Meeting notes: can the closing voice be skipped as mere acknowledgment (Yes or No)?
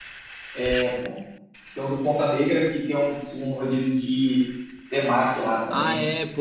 No